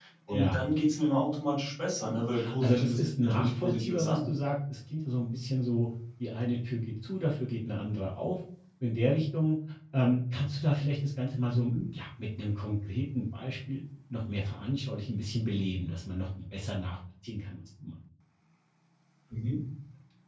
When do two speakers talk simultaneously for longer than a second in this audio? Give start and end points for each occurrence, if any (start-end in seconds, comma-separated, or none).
2.6-4.2